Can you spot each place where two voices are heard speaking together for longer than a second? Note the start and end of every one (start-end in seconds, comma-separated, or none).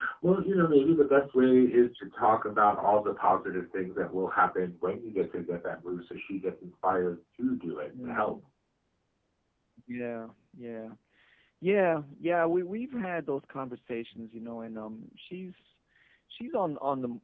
none